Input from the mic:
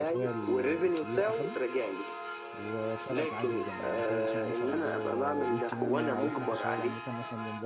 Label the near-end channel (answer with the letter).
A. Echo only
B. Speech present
B